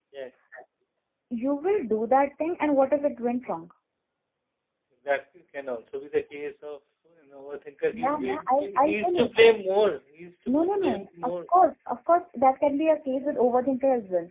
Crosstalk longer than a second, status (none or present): present